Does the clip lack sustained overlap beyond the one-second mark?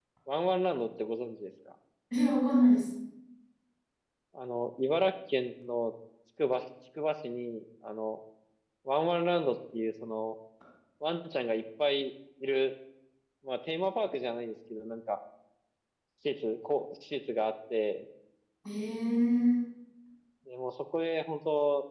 Yes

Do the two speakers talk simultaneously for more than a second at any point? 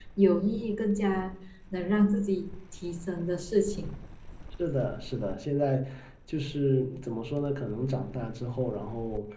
No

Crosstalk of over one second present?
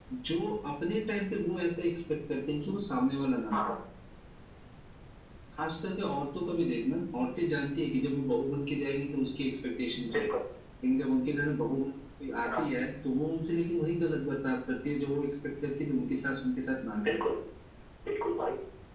No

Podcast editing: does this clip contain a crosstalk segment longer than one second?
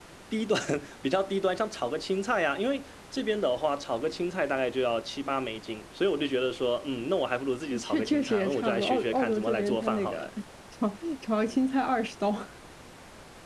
Yes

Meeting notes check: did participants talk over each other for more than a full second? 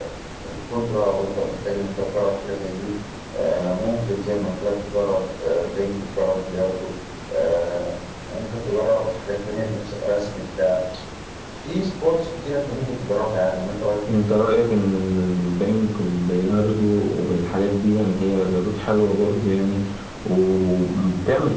No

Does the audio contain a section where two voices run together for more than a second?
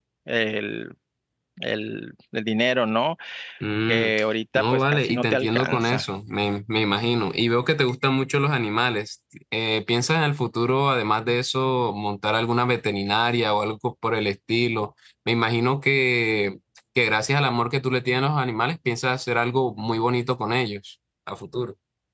Yes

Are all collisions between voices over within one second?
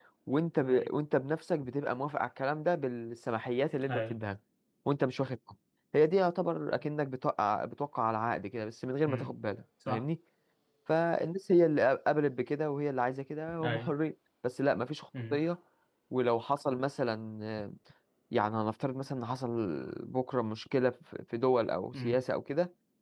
Yes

